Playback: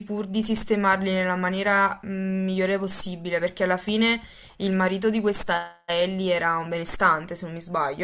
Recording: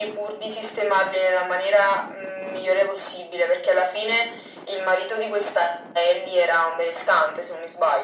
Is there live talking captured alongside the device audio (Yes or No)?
No